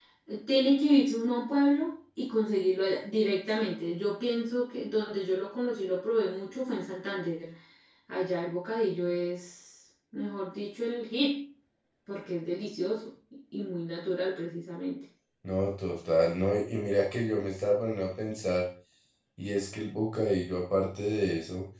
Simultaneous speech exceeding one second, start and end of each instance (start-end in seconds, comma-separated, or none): none